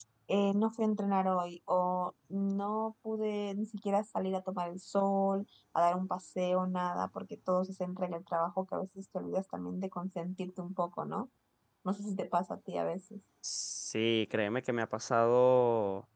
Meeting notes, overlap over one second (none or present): none